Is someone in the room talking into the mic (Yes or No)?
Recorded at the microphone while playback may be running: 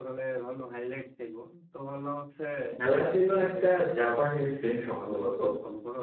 Yes